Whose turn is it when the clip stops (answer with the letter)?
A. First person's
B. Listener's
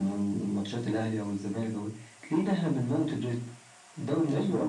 B